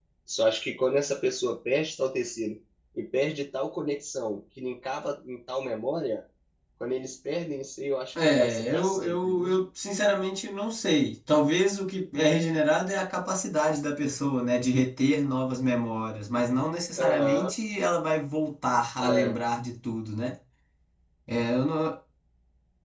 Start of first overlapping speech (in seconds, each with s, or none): 8.2 s